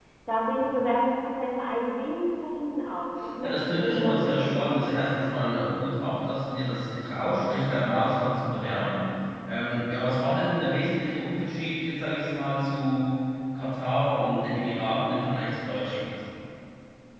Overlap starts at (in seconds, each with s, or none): 3.1 s